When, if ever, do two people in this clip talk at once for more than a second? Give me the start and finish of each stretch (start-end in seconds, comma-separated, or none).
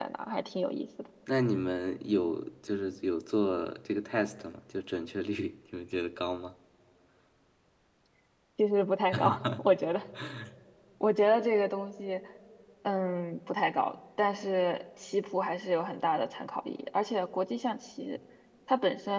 none